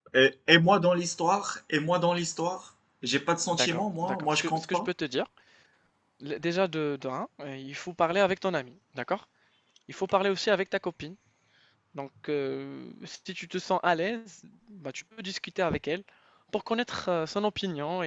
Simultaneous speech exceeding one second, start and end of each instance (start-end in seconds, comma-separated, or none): 3.5-4.9